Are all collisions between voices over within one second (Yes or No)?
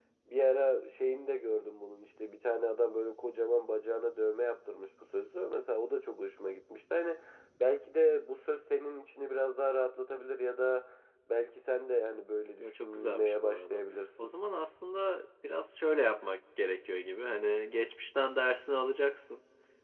No